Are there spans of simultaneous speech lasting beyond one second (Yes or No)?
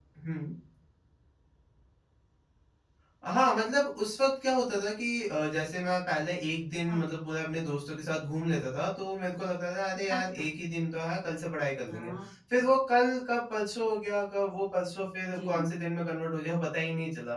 No